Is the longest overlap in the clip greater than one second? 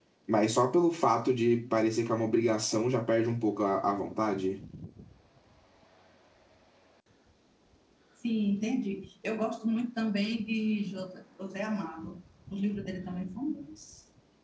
No

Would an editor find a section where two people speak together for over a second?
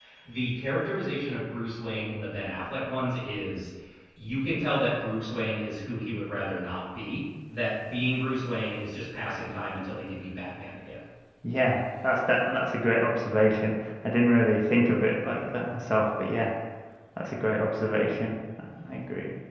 No

